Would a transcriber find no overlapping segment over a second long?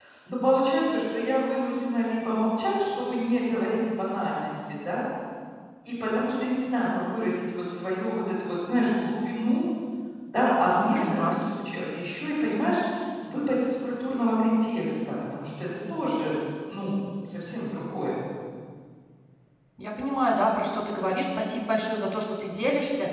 Yes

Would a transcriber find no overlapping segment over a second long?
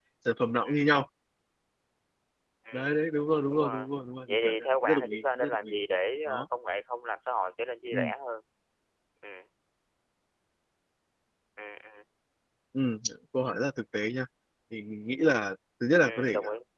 No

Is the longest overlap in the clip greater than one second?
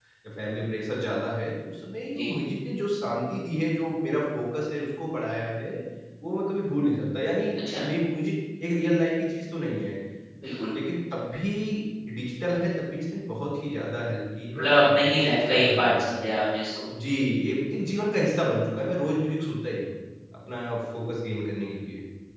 Yes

